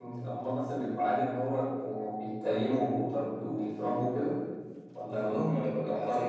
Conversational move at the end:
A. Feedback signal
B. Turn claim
B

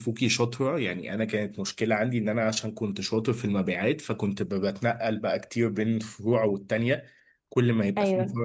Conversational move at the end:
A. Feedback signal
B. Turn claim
A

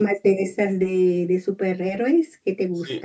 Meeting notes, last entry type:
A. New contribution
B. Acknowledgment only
A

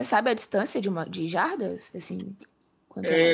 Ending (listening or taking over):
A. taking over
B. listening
A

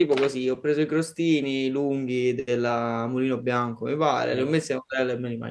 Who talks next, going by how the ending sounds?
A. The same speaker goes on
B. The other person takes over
A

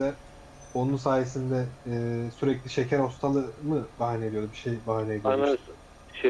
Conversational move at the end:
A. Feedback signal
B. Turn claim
B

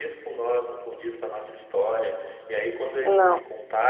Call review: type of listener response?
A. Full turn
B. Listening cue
B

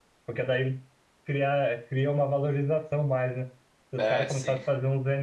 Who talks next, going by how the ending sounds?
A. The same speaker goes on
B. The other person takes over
A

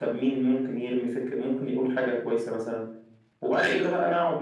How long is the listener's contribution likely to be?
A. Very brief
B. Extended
A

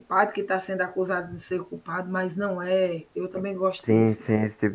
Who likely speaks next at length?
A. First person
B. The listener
B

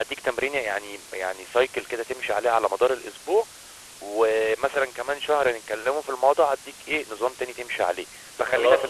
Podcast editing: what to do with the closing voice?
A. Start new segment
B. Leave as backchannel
B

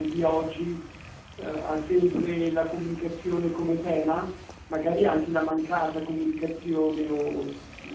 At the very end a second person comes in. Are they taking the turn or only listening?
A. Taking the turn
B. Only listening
B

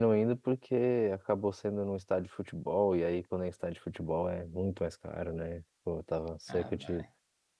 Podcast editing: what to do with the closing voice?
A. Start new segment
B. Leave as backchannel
B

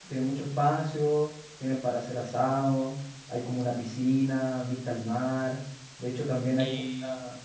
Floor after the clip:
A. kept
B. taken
B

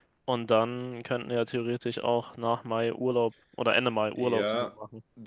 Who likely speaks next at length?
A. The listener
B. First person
A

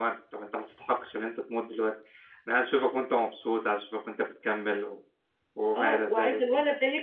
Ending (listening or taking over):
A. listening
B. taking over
B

